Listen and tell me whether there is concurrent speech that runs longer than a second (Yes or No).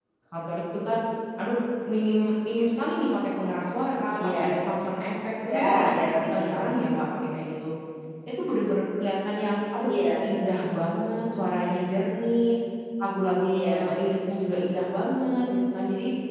No